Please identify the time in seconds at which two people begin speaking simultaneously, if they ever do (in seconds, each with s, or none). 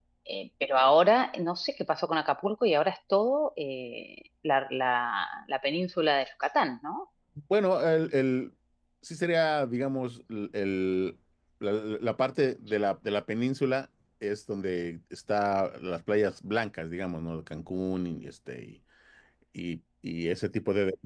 none